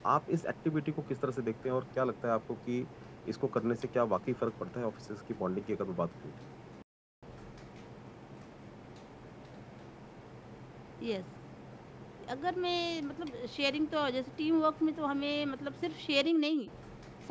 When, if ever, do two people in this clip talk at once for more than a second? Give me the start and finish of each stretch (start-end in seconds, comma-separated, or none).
none